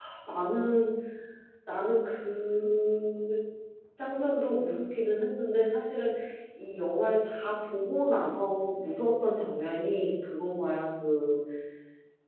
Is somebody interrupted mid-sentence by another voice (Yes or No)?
No